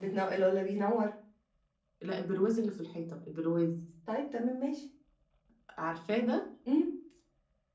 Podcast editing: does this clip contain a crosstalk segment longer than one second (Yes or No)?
No